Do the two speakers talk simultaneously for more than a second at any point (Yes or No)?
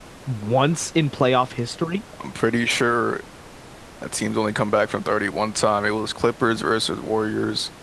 No